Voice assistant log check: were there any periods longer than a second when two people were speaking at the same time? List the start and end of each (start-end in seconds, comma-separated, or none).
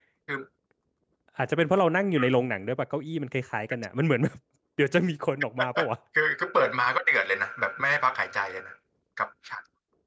none